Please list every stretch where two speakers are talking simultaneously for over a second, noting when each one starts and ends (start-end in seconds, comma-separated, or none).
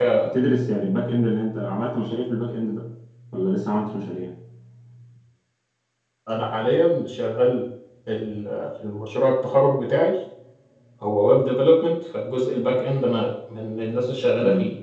none